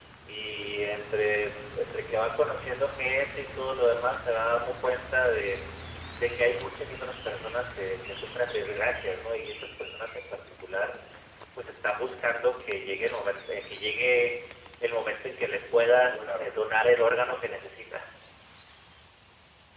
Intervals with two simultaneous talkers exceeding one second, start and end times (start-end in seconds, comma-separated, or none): 15.9-17.6